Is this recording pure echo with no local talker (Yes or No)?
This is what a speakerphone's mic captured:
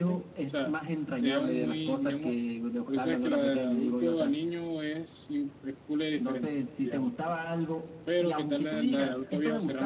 No